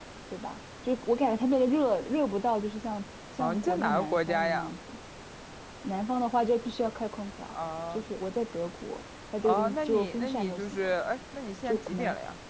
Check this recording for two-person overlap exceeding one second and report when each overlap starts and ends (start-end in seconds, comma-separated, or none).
3.4-4.7, 9.4-10.9